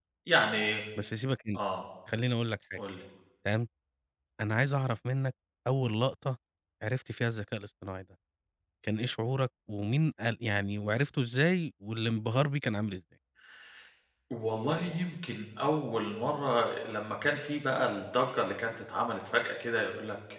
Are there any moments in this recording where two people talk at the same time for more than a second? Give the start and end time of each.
none

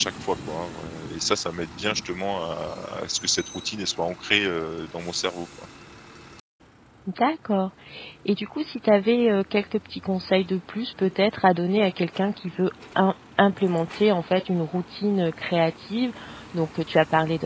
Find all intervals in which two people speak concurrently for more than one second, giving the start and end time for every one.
none

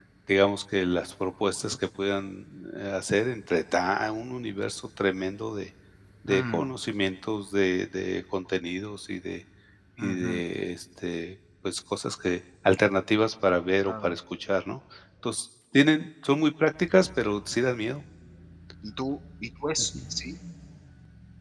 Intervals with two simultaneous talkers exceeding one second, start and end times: none

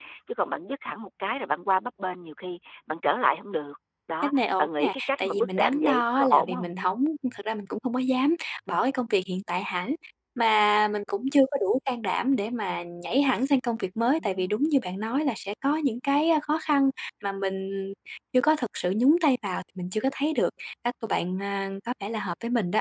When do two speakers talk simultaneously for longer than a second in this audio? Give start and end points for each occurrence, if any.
4.2-6.7

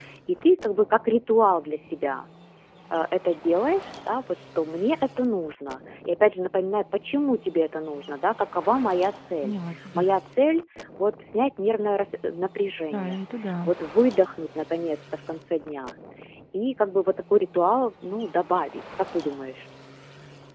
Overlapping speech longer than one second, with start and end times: none

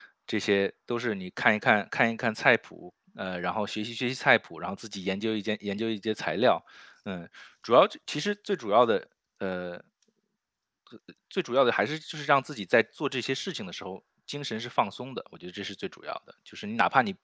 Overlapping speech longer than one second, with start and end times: none

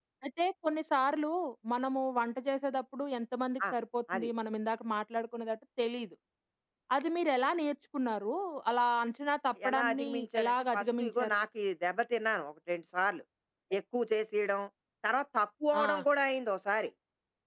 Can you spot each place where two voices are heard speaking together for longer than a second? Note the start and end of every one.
9.7-11.4

